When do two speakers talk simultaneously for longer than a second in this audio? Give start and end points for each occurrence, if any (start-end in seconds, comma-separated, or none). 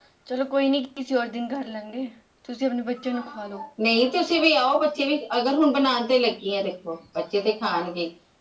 none